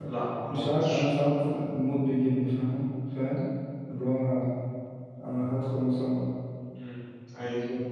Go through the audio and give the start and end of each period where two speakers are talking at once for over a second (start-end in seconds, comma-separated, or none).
none